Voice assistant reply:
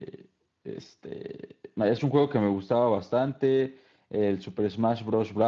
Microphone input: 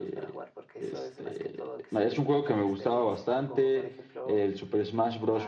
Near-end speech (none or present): present